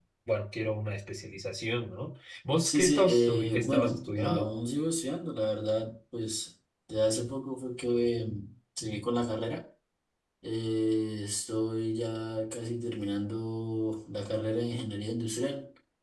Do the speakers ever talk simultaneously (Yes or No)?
Yes